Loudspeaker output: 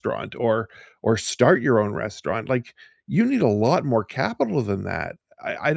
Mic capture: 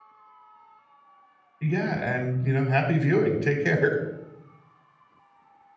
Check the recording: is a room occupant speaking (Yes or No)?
Yes